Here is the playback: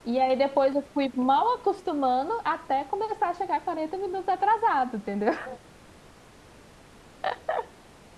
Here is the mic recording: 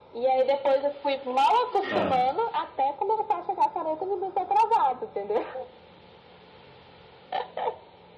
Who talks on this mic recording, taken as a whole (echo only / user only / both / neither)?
both